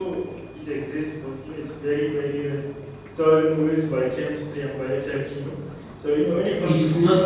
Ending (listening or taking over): taking over